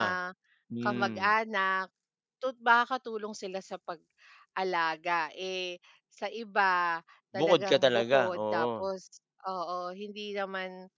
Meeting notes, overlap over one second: present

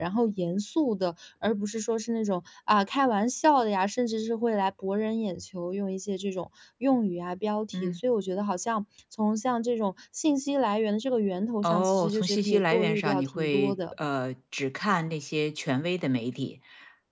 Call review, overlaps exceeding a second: present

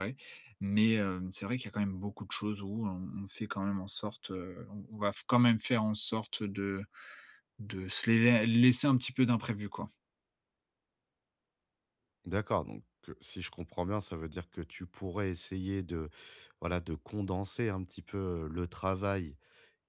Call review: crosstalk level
none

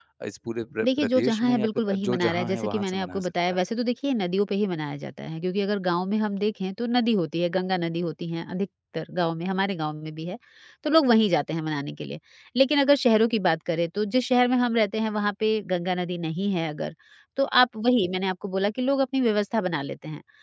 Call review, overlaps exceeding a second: present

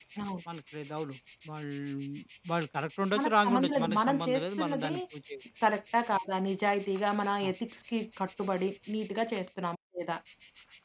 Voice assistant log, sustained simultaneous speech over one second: present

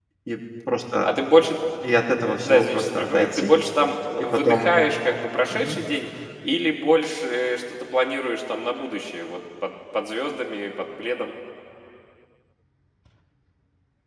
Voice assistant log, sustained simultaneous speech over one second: present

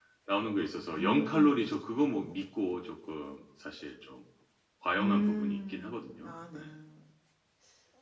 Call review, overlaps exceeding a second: present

